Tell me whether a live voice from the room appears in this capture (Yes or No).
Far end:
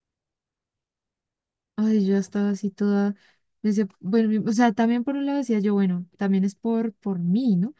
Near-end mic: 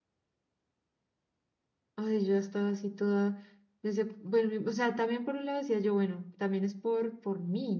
No